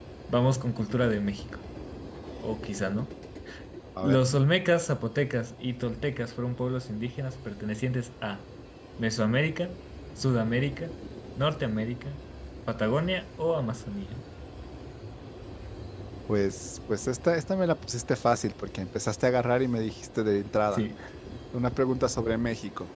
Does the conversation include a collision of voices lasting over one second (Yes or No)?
No